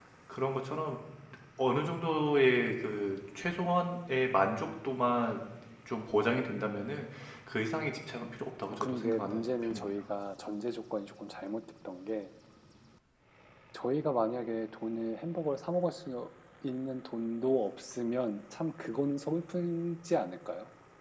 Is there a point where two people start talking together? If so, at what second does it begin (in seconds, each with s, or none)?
8.7 s